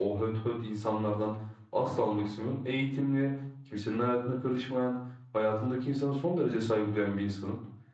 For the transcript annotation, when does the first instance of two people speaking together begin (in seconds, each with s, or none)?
none